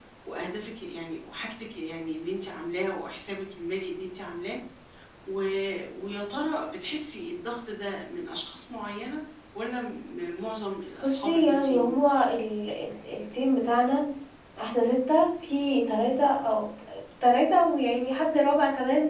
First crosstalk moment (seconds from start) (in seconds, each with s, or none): 11.0 s